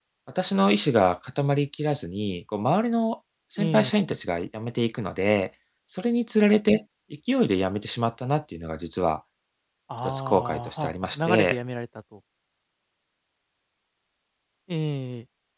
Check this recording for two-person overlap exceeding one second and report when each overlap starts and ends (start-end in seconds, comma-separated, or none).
10.0-11.6